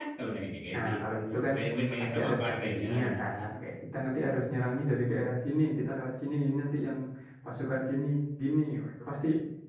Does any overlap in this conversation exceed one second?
Yes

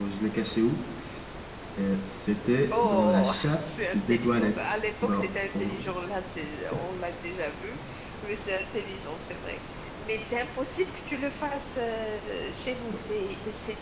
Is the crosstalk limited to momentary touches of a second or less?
No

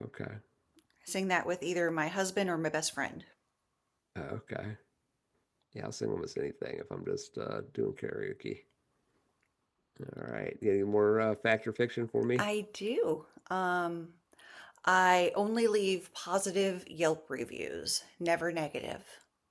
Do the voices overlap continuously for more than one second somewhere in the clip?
No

